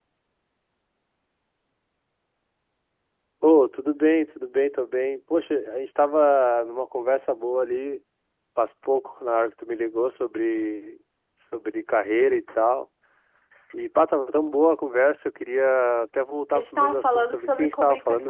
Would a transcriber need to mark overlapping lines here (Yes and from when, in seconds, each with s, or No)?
Yes, from 16.5 s